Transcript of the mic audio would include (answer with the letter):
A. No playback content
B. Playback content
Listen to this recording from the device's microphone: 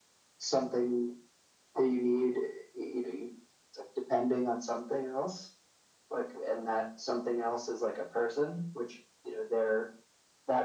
B